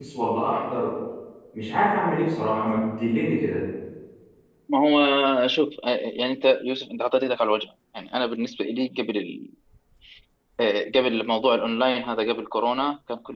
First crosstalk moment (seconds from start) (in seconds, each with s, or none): none